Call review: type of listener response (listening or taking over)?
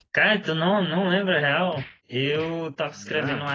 listening